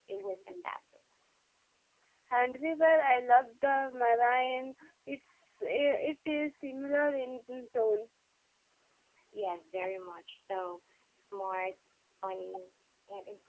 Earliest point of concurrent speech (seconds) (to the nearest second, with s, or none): none